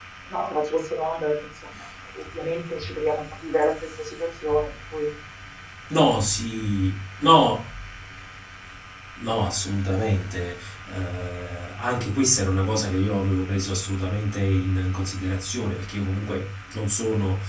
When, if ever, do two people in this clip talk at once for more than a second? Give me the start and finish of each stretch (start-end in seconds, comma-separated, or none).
none